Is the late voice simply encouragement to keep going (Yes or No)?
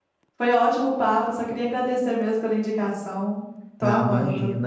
No